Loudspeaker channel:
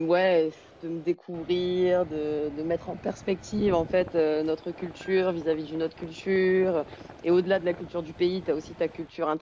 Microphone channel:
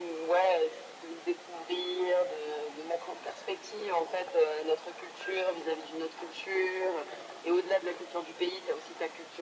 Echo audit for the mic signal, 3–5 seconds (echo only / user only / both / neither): echo only